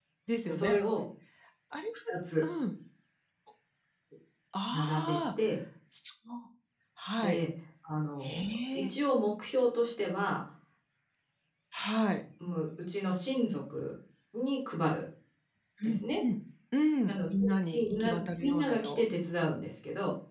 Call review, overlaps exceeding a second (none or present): present